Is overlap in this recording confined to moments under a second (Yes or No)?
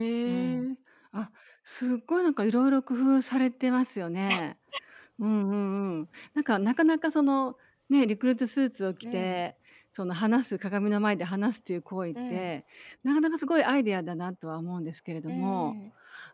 Yes